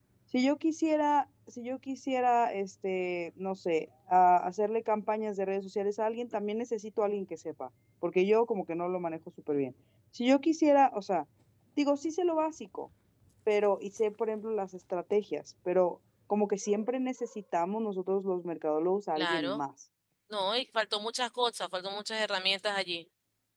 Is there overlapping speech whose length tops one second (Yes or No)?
No